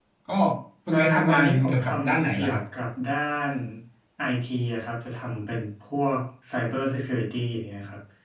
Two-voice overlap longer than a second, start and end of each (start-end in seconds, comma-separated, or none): 0.9-2.6